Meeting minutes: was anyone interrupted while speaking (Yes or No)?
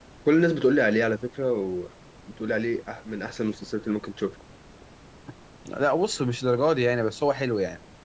No